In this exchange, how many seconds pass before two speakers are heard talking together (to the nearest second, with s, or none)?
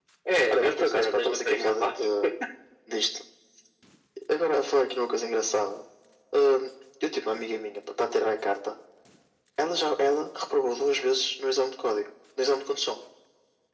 1 s